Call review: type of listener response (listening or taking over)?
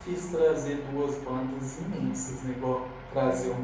listening